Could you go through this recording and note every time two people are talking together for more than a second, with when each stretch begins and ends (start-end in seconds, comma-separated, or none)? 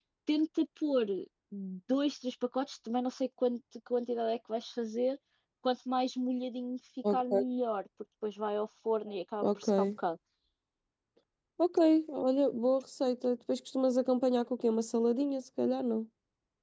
none